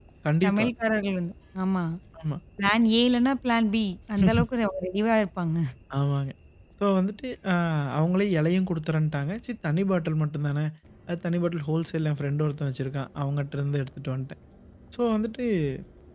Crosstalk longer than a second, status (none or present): none